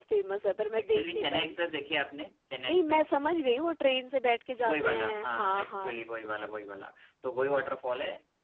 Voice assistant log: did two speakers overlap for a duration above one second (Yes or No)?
Yes